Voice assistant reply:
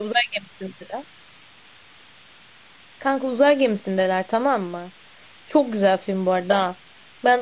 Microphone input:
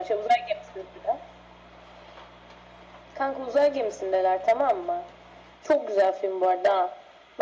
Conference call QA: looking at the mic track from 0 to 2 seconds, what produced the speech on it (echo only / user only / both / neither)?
echo only